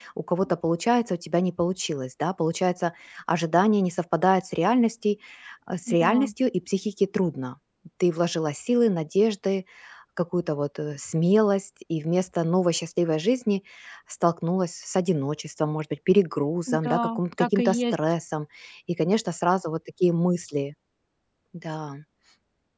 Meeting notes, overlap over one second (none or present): present